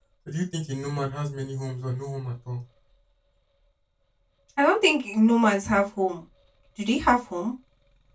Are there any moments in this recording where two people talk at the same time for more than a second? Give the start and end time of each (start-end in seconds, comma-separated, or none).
none